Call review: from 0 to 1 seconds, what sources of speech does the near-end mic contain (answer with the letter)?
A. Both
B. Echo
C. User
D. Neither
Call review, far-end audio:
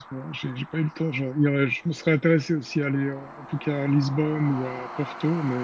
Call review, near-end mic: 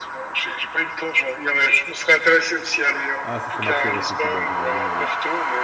B